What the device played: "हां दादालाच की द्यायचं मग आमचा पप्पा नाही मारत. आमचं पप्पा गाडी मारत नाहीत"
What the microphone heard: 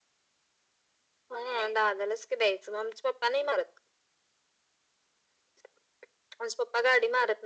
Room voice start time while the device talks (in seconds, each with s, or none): none